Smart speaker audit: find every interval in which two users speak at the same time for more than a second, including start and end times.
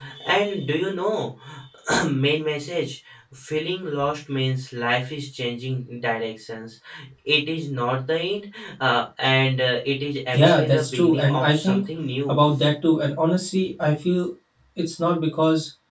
10.3-11.8

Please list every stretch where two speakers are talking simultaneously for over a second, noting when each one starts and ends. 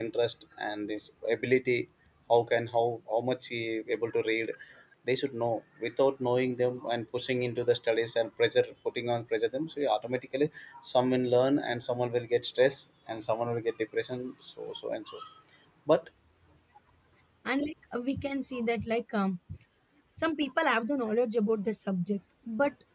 none

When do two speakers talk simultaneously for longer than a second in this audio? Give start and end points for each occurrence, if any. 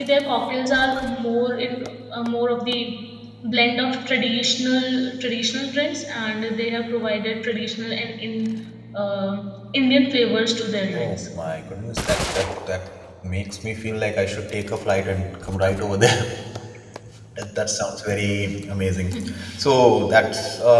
none

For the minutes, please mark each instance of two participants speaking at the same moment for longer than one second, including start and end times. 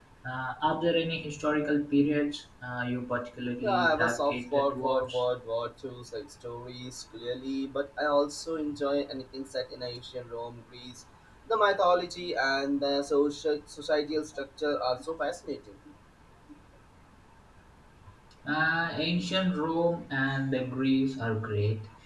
3.6-5.2

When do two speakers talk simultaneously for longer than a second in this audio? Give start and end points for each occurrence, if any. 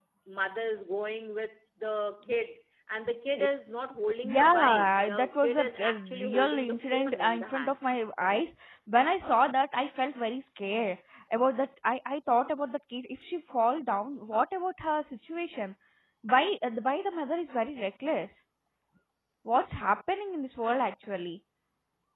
4.3-7.8

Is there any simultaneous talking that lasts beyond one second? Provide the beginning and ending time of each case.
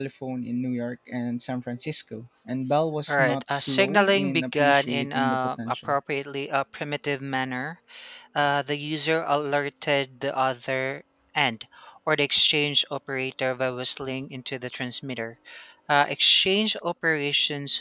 3.1-6.0

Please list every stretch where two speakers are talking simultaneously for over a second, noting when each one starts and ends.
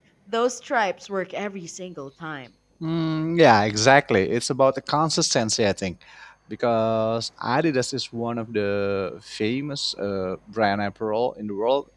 none

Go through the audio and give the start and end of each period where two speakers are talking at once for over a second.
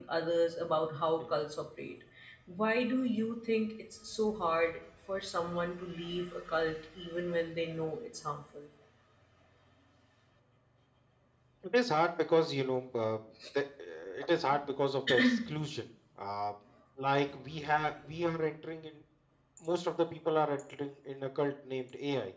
none

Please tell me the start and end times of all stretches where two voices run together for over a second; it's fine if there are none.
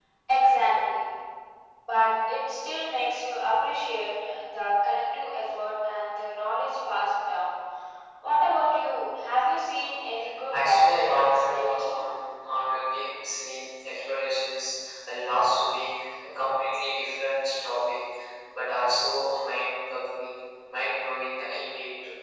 10.5-11.9

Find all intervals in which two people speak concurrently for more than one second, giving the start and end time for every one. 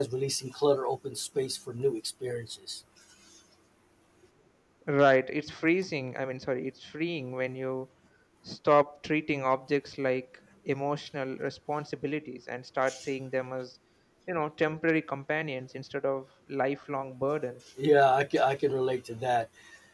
none

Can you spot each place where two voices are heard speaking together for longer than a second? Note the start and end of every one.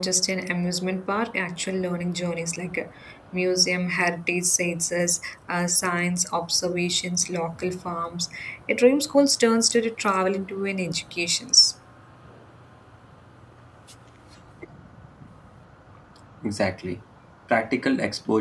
none

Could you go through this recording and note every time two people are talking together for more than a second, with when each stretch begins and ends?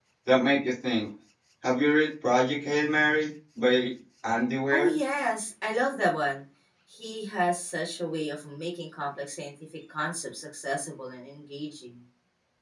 none

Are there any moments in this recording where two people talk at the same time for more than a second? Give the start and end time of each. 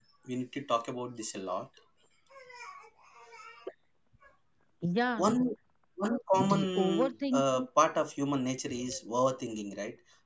6.3-7.7

